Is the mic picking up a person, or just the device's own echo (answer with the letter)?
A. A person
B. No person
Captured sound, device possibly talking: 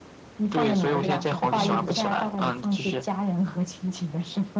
A